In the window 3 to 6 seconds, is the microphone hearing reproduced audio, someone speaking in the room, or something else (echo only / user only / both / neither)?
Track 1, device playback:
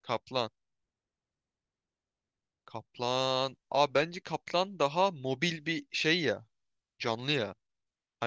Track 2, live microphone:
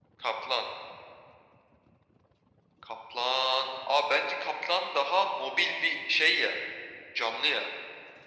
echo only